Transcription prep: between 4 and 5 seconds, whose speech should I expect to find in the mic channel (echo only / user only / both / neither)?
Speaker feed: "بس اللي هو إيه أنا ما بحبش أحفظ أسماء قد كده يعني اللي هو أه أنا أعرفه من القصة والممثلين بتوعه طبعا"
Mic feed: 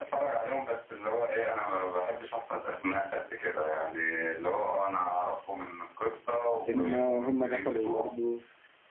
echo only